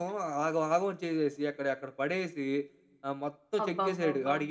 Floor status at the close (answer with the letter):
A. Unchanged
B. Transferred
A